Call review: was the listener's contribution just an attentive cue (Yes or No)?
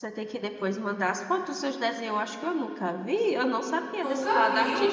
Yes